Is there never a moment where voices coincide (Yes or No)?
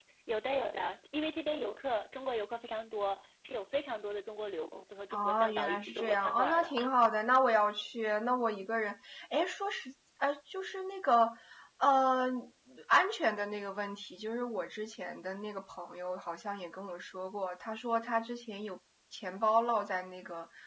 No